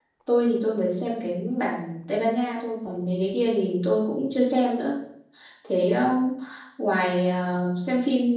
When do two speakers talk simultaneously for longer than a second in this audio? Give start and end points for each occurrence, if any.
none

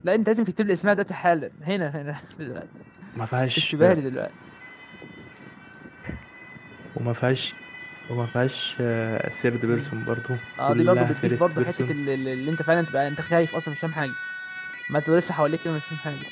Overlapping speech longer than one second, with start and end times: 10.6-12.0

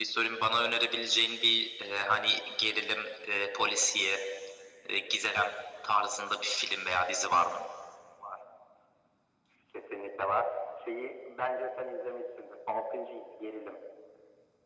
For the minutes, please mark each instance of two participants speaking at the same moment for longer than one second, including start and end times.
none

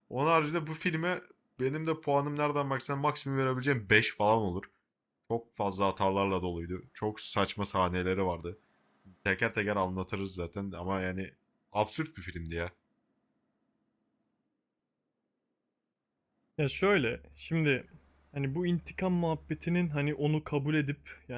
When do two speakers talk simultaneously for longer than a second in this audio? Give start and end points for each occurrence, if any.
none

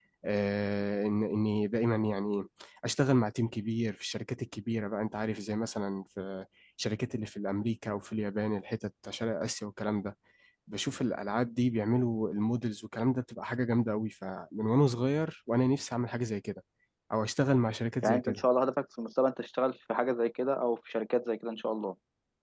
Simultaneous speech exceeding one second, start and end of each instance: none

